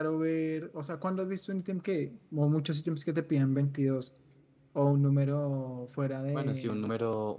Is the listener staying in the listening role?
No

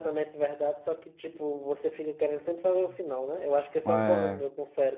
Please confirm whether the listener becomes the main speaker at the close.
No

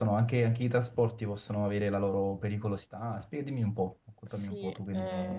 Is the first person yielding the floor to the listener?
Yes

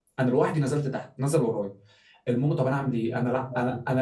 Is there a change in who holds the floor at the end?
No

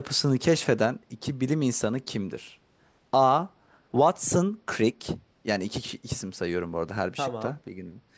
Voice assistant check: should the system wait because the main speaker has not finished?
Yes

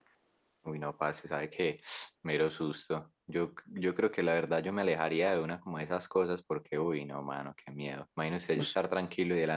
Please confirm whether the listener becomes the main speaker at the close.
No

